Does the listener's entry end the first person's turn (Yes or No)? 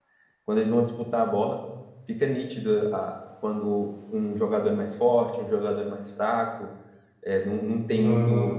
No